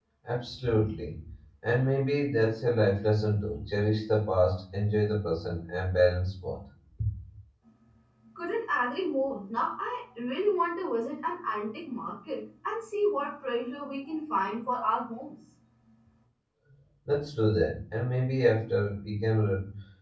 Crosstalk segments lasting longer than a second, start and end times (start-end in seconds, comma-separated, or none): none